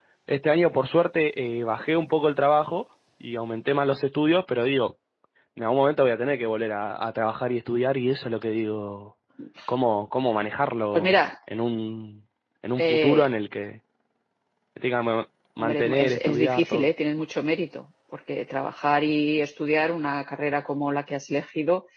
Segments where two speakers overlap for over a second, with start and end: 15.6-16.9

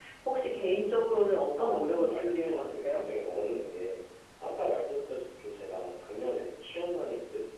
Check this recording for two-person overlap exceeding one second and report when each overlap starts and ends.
1.6-3.0

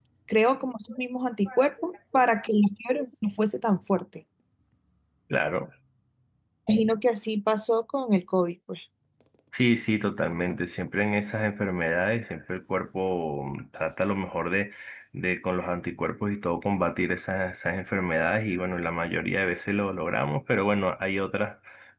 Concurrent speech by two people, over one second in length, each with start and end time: none

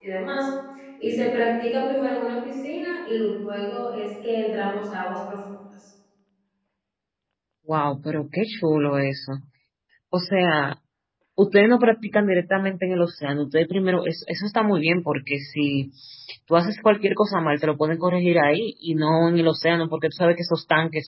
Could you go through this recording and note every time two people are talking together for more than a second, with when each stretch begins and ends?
none

